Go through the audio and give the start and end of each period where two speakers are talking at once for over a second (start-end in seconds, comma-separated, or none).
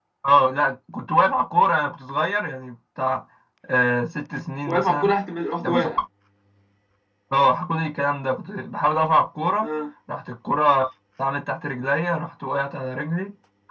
none